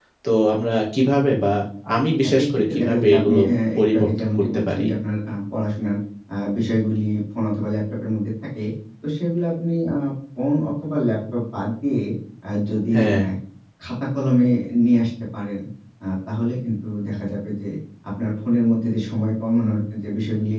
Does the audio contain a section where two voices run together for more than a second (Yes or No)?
Yes